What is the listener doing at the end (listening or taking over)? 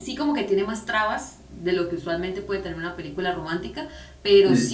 listening